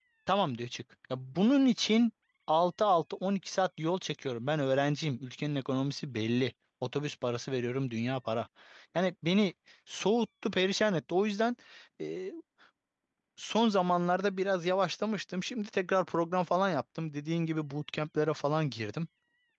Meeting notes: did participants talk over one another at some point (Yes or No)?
No